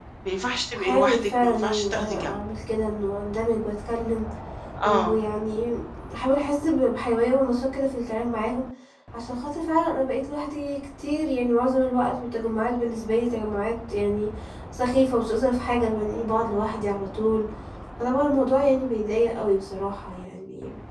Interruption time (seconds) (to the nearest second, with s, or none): 1 s